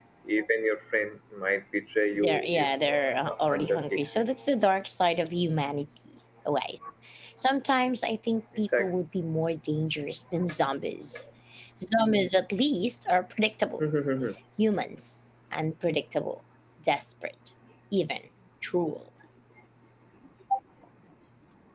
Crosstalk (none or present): present